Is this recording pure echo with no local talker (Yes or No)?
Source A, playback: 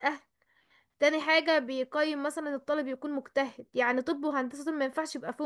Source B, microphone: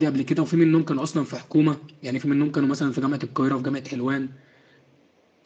No